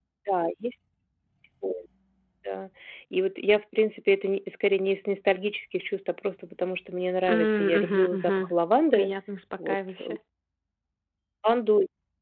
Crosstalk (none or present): present